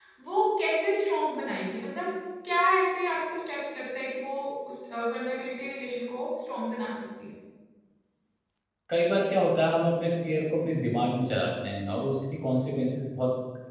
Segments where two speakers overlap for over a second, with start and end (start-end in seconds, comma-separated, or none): none